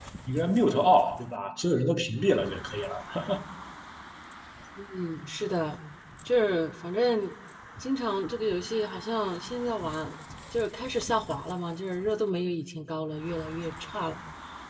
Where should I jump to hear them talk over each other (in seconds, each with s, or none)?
none